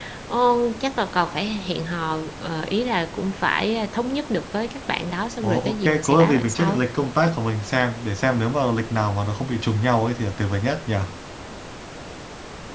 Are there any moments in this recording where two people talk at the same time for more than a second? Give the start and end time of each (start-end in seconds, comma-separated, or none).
5.4-6.8